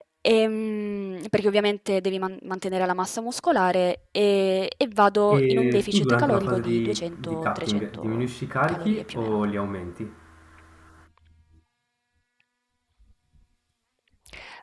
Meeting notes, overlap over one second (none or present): present